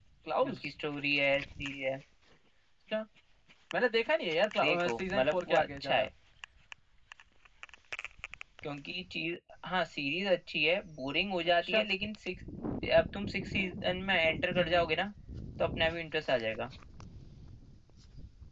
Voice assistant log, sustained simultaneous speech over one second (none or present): present